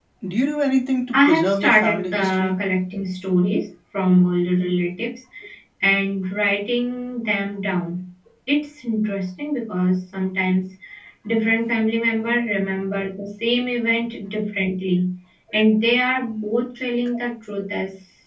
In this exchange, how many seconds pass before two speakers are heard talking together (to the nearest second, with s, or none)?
1 s